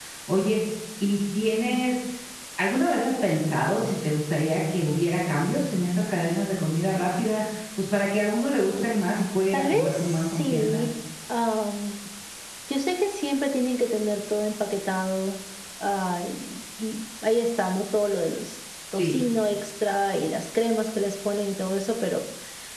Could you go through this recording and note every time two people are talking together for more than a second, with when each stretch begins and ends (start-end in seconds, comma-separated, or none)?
9.5-10.8